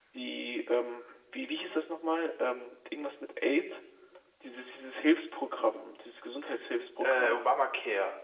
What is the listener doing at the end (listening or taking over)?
taking over